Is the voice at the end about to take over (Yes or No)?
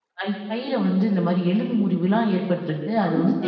No